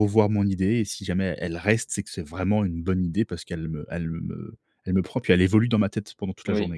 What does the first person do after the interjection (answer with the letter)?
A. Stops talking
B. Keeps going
A